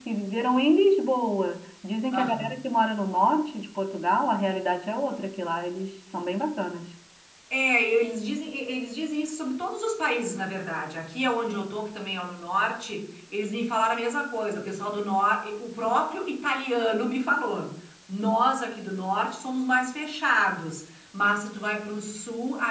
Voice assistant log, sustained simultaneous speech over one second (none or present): none